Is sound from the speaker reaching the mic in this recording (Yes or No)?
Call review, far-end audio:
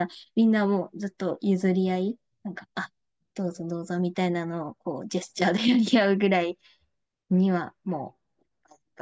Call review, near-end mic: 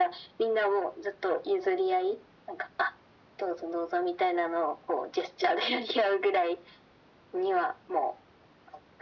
Yes